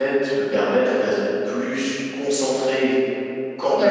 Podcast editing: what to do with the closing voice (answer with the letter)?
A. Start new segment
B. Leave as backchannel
A